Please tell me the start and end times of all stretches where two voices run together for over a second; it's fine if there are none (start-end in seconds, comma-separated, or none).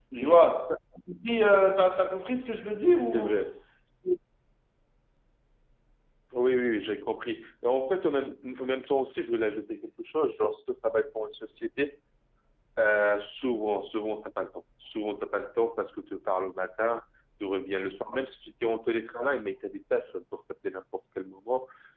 none